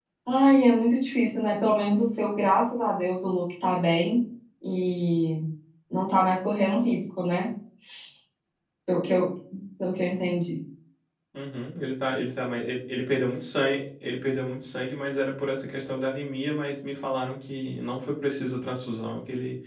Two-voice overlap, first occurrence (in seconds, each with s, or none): none